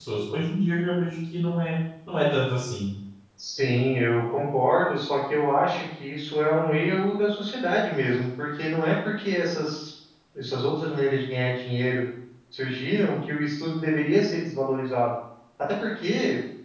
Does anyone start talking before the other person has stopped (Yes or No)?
No